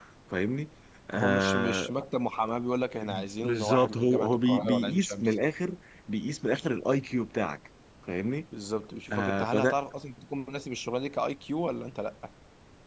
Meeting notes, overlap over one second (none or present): present